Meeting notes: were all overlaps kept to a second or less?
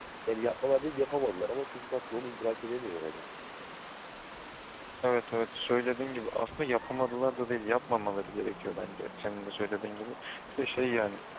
Yes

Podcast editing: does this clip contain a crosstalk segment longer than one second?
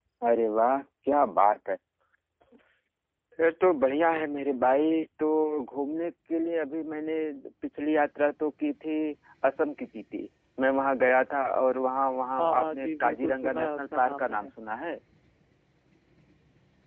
Yes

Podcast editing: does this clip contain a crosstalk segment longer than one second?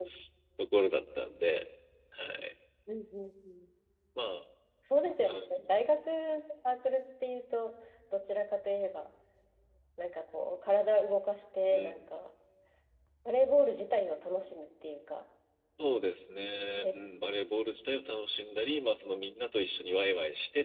No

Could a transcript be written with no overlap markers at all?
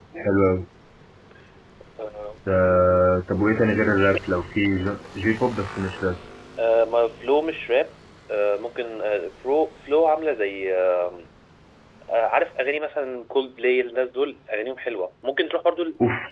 Yes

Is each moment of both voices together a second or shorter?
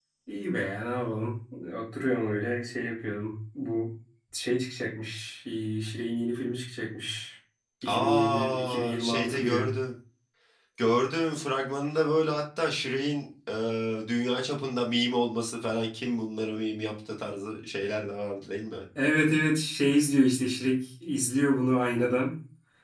No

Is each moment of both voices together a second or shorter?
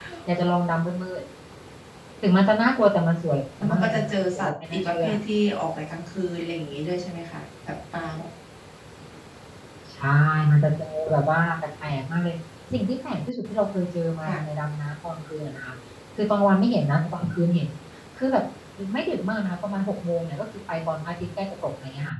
No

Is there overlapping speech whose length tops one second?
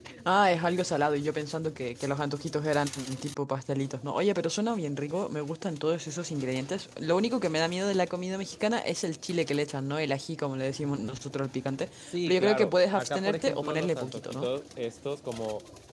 Yes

